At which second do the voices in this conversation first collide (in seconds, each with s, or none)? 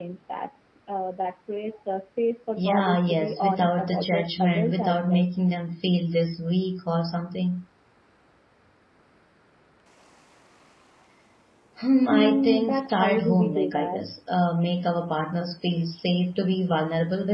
2.6 s